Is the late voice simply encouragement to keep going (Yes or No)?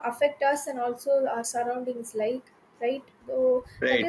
Yes